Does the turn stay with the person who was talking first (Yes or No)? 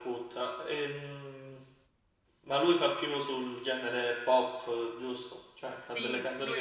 No